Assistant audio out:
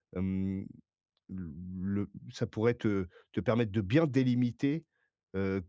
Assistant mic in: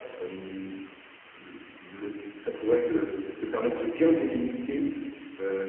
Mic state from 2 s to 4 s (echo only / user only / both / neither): echo only